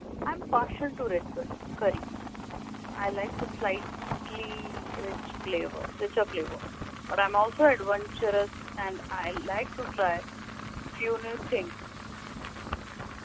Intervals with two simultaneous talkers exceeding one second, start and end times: none

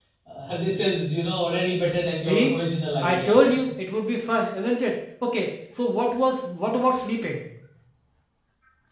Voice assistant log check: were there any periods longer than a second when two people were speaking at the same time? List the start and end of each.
none

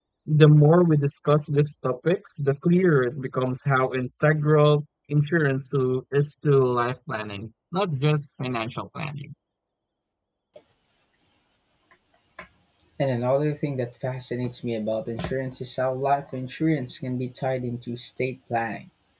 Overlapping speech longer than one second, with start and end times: none

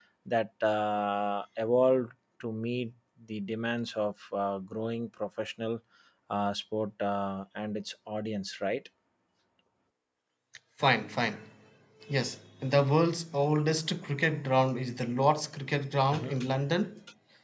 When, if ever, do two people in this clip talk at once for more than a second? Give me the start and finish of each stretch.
none

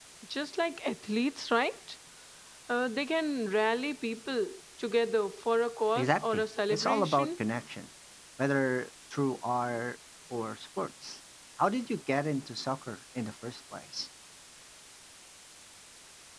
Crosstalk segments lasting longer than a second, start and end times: 6.0-7.4

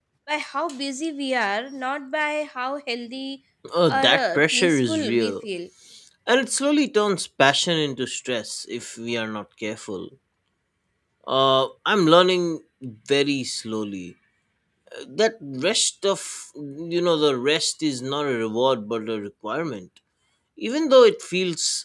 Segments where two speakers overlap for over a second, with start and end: 3.9-5.3

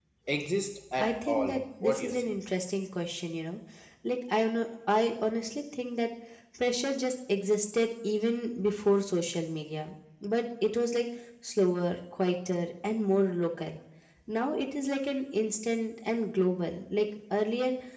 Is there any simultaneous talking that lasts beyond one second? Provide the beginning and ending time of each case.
1.0-2.3

